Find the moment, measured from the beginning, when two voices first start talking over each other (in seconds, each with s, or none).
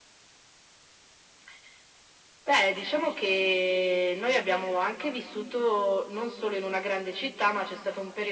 none